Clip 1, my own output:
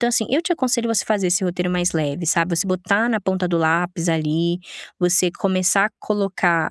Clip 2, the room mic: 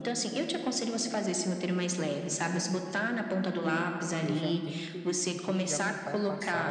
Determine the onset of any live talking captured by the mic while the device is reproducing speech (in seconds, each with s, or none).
4.2 s